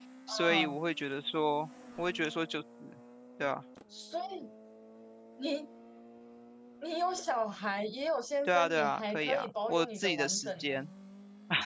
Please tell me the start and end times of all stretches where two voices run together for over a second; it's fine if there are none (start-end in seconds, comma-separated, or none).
8.4-10.7